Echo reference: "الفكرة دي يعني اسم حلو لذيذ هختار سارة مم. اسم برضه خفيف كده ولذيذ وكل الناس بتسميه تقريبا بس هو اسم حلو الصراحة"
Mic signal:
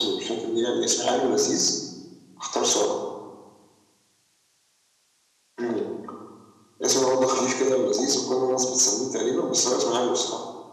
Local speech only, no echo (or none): none